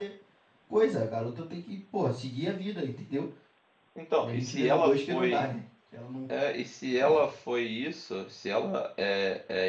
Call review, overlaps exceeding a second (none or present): present